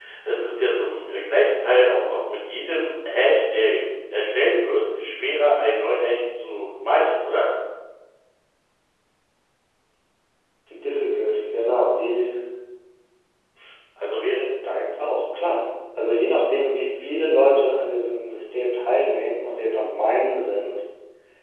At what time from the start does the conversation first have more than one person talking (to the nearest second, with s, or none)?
none